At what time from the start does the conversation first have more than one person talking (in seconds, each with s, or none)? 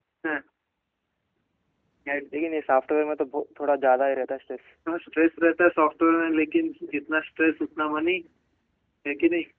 none